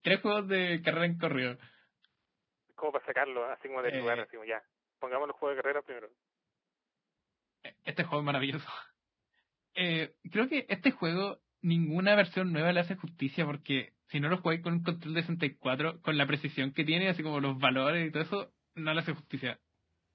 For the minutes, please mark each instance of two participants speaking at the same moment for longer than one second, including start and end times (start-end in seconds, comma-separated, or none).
none